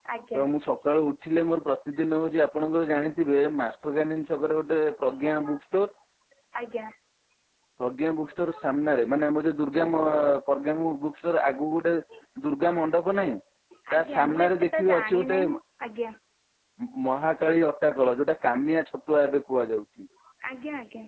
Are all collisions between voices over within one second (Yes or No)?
No